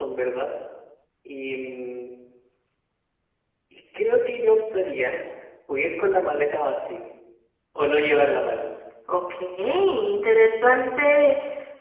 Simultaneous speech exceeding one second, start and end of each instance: none

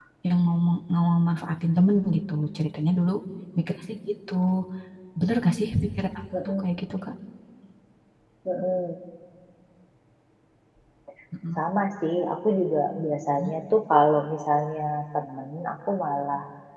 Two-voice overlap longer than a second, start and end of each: none

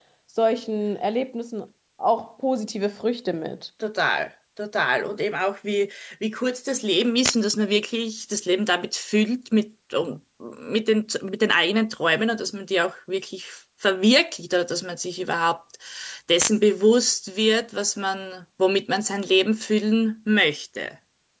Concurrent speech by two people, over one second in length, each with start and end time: none

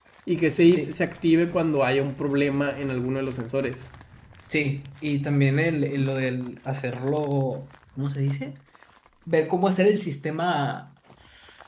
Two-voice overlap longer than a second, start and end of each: none

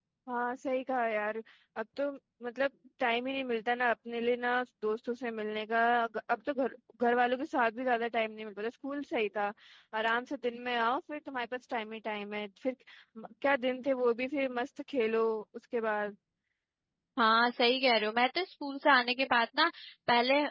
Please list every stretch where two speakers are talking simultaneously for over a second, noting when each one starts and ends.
none

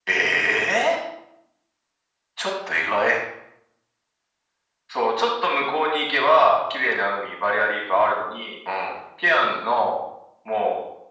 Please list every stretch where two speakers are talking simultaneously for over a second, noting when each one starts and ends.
none

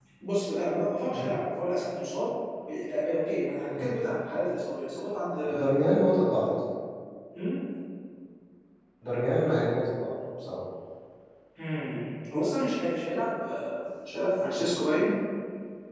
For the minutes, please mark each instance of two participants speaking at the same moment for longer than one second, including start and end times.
none

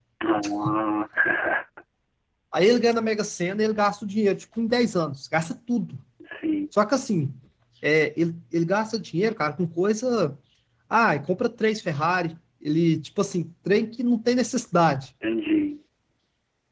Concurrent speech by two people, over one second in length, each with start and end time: none

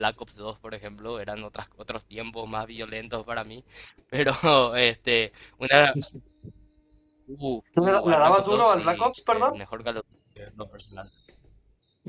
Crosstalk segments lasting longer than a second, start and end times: 7.8-9.6

